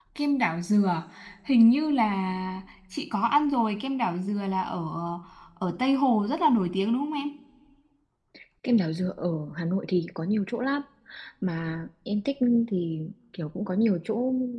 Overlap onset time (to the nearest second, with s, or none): none